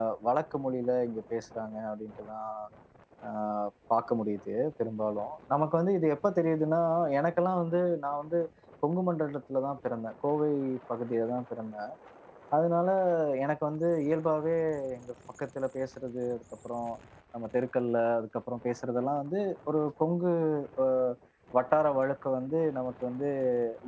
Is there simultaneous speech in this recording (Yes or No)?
No